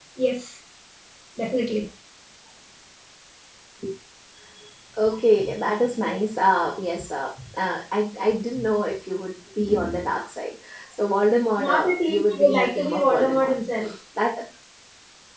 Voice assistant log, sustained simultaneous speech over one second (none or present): present